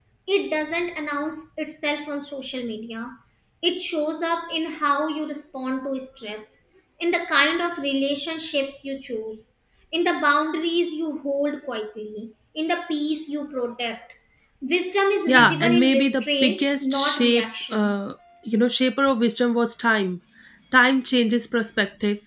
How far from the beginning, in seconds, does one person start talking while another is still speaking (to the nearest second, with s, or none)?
15 s